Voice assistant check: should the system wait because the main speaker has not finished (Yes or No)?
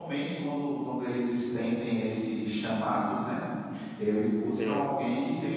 Yes